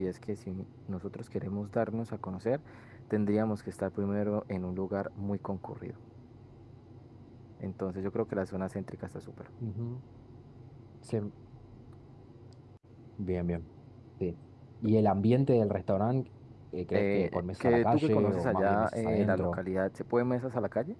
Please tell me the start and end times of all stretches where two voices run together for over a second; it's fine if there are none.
16.9-19.6

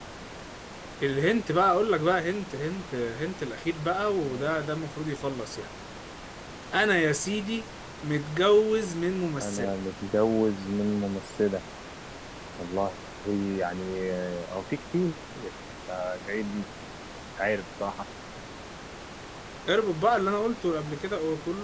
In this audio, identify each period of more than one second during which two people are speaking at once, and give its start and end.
none

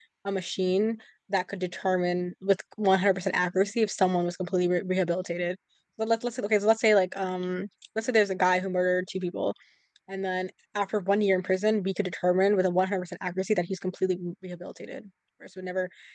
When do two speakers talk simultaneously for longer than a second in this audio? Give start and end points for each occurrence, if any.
none

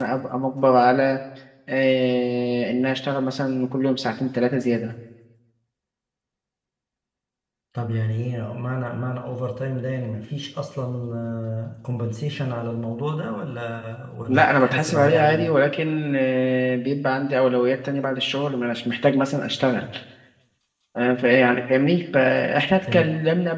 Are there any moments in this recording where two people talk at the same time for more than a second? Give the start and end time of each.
14.3-15.5

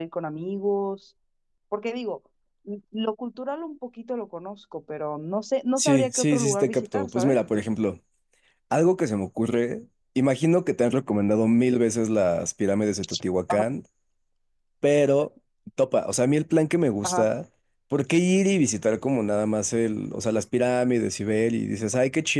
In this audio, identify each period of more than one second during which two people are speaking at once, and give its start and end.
5.8-7.4

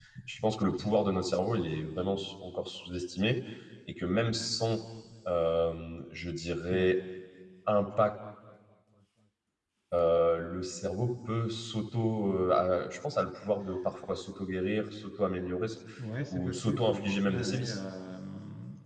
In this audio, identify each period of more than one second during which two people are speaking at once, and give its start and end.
16.3-17.8

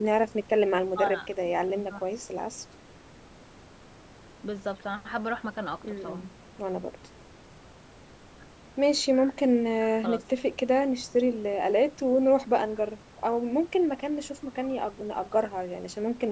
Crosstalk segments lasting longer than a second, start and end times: none

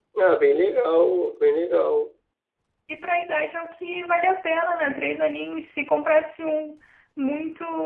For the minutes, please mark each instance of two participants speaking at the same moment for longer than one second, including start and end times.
none

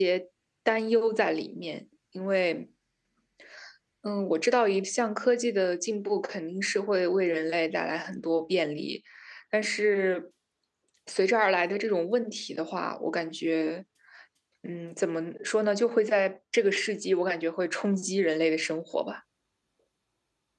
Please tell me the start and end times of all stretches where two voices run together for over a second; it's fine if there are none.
none

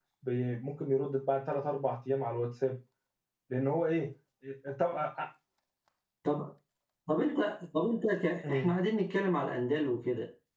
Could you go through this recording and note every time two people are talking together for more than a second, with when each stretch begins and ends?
none

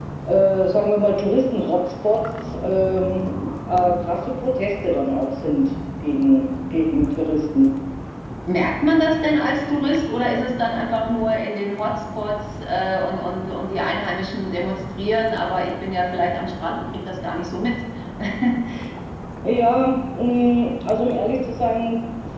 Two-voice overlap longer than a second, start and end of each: none

